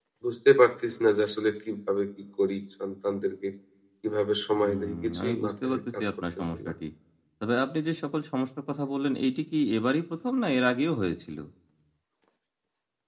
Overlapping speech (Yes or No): Yes